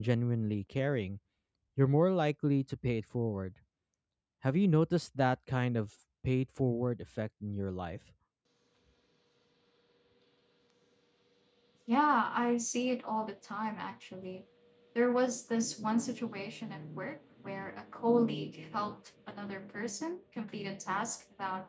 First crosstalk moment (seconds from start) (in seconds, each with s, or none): none